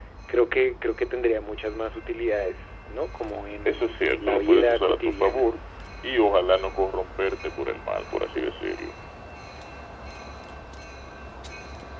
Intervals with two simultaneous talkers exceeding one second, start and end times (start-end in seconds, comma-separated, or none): 3.6-5.5